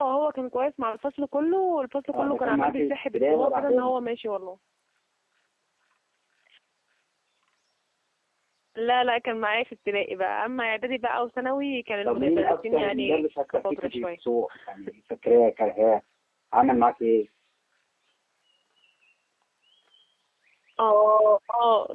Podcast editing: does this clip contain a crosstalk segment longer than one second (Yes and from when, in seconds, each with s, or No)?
Yes, from 2.1 s